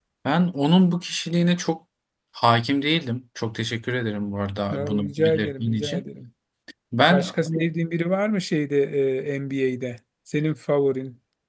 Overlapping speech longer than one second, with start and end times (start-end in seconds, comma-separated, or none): 4.7-6.0